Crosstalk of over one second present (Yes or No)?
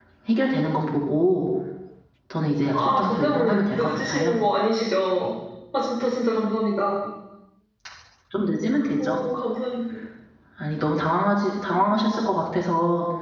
Yes